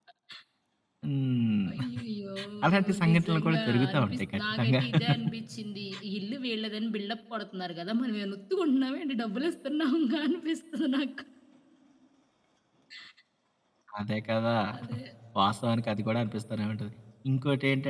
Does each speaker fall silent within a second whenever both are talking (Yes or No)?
No